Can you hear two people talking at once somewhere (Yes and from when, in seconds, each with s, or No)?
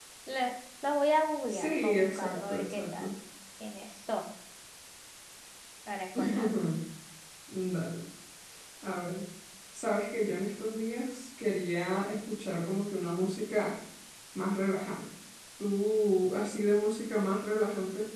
Yes, from 1.5 s